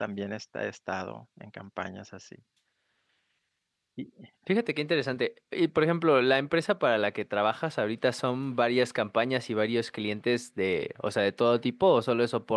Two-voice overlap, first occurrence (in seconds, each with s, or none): none